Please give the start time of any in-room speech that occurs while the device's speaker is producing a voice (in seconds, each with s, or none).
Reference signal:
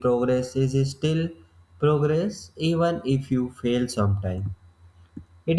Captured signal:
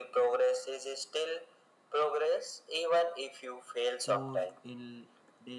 4.0 s